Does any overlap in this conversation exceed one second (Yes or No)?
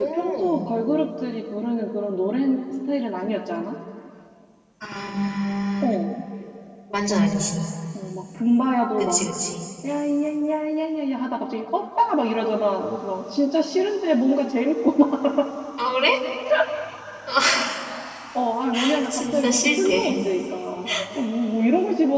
Yes